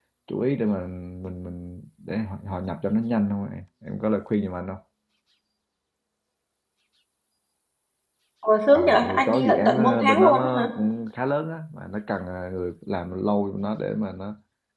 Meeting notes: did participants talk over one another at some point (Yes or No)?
Yes